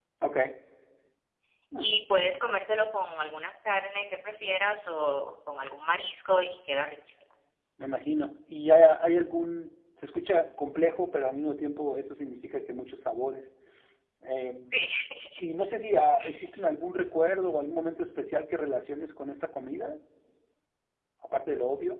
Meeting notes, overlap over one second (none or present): none